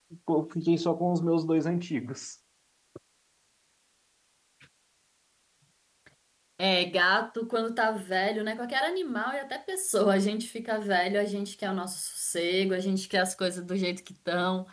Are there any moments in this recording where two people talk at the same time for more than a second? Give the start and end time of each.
none

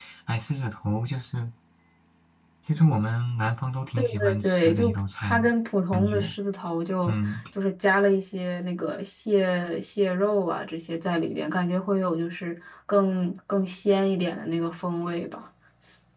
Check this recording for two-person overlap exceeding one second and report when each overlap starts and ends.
4.2-5.5

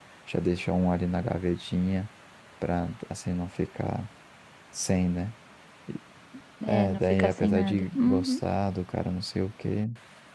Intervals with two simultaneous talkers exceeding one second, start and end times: 6.7-8.4

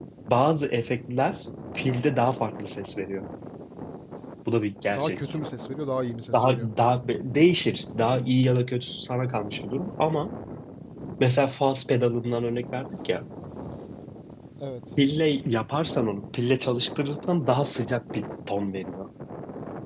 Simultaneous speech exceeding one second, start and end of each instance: none

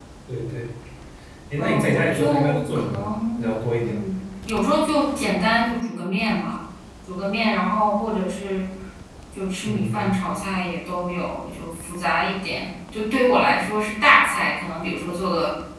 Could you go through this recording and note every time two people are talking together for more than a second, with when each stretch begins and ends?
1.6-3.1

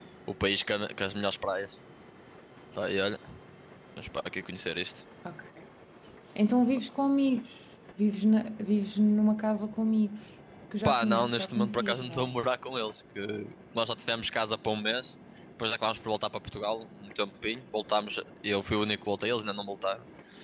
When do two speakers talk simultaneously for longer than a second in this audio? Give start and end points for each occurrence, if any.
10.8-12.3

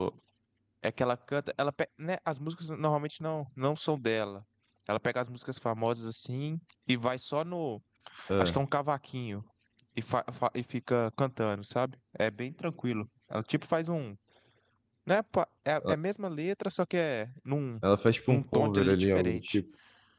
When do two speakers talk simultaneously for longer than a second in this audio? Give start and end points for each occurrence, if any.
18.3-19.6

